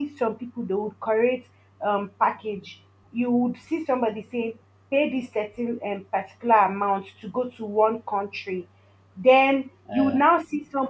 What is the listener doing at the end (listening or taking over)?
listening